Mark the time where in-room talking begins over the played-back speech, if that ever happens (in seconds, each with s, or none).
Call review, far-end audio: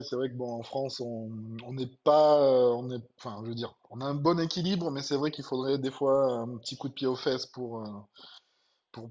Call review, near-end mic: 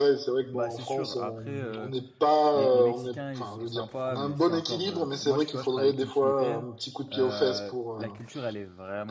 0.5 s